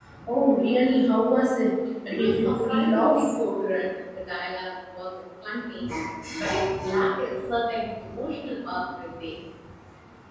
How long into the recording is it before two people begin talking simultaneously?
2.1 s

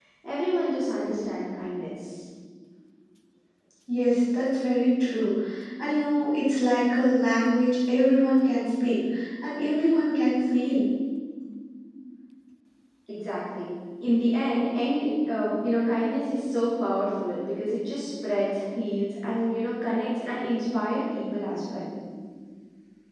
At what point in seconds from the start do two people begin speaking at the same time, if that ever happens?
none

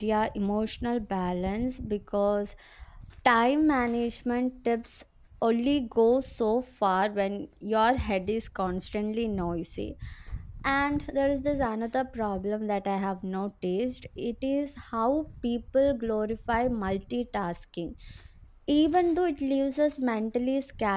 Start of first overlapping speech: none

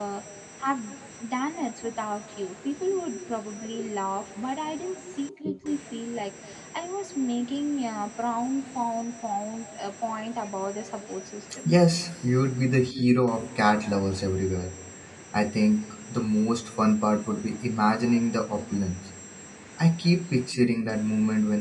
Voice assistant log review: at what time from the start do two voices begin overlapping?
none

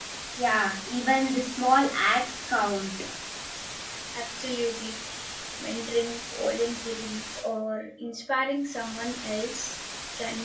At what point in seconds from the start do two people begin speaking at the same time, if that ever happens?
none

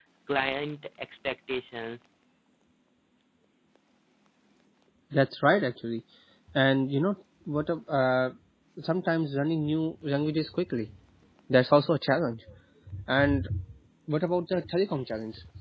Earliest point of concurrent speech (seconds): none

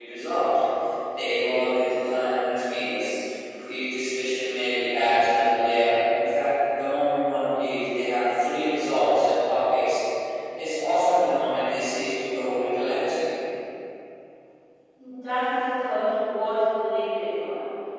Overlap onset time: none

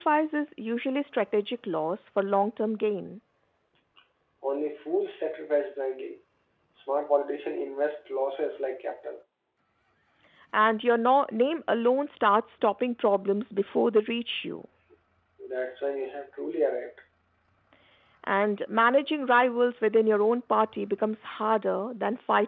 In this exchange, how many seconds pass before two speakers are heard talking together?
none

